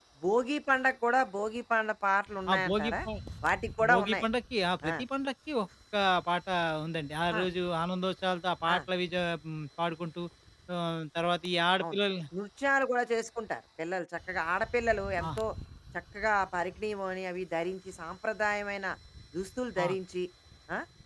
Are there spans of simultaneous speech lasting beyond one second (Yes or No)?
No